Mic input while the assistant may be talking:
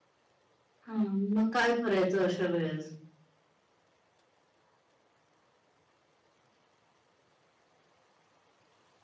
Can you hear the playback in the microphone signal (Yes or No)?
No